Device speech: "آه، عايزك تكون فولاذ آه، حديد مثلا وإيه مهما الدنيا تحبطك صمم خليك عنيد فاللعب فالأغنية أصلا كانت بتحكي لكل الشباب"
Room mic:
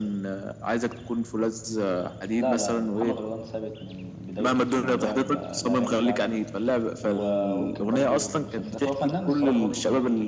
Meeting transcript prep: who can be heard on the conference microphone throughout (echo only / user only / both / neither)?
both